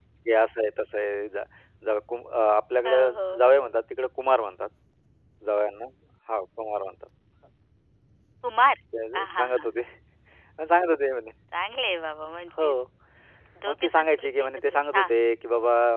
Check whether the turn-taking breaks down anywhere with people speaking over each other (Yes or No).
Yes